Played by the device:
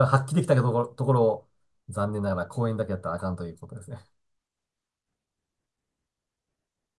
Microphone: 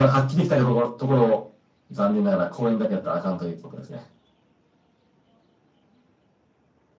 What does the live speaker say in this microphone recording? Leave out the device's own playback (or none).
none